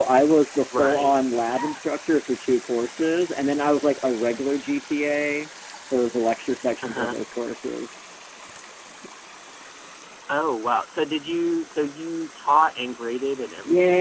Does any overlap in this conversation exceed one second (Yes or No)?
No